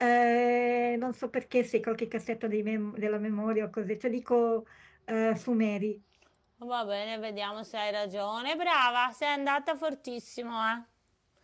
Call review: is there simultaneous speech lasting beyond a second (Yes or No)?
No